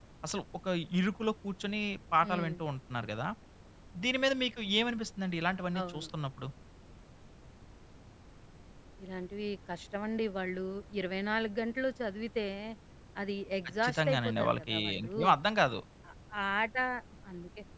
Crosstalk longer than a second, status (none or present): present